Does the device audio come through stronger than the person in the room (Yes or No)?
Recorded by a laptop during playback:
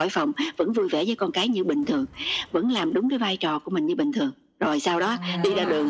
Yes